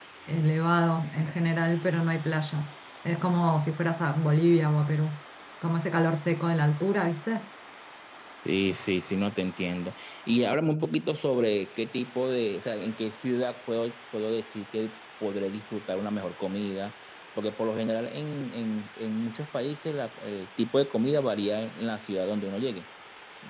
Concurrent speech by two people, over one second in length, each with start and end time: none

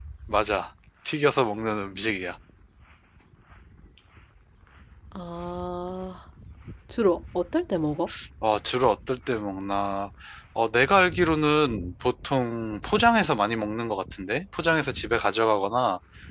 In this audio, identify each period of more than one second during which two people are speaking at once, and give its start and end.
none

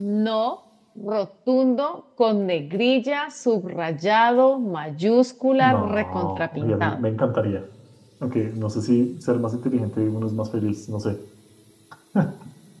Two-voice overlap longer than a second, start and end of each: 5.6-7.0

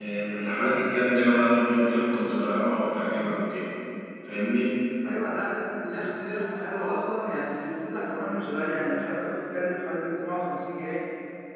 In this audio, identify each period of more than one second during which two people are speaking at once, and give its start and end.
none

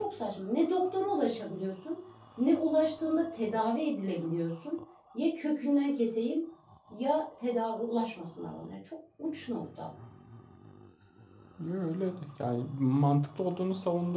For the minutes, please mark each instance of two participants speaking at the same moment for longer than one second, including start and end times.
none

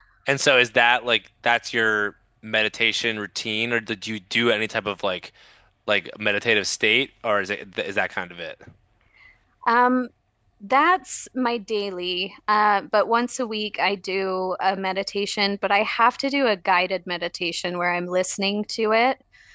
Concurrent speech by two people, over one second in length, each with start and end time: none

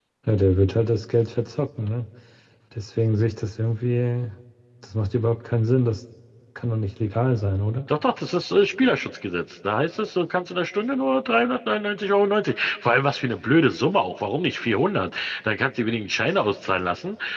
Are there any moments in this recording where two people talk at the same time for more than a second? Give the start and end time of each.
none

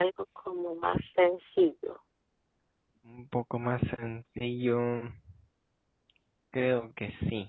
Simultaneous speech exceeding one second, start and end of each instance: none

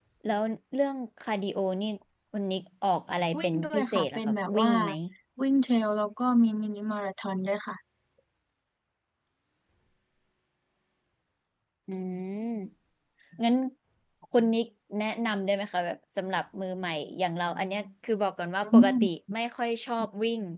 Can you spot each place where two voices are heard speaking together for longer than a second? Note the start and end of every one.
3.4-4.7

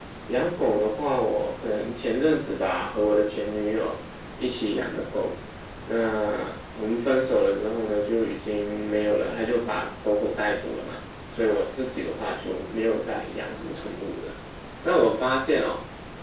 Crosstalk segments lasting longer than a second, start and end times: none

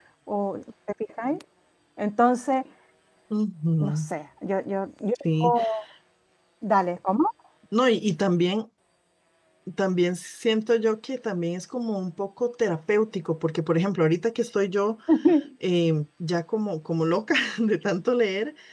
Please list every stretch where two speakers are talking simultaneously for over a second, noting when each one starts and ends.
none

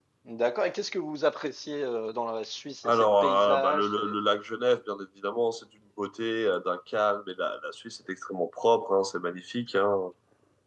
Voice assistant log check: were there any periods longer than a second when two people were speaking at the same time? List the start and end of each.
2.8-4.2

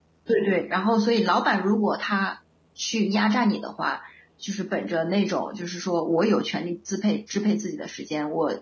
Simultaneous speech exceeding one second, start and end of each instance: none

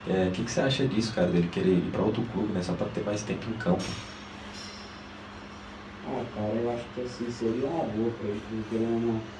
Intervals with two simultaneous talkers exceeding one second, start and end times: none

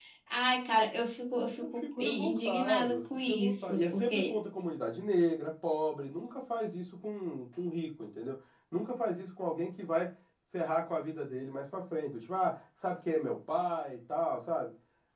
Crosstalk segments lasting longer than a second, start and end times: 1.5-4.4

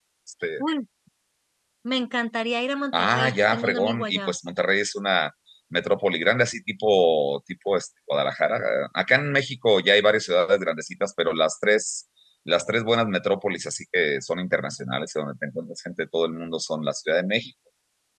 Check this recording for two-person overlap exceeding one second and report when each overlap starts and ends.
2.9-4.3

